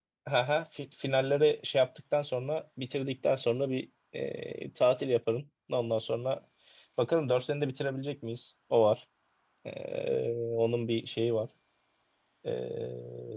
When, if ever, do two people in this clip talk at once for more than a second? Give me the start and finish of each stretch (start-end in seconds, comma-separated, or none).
none